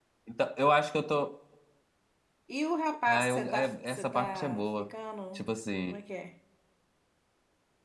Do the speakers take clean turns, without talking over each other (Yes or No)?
No